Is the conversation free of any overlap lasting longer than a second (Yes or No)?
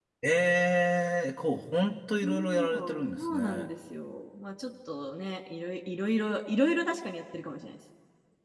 No